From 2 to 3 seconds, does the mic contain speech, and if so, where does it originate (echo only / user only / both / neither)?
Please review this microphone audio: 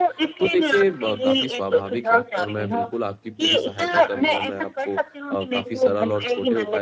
both